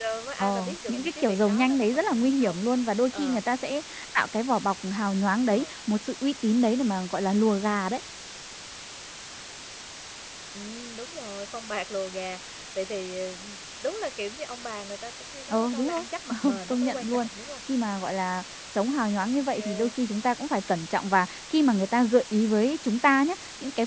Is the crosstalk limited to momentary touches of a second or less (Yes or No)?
No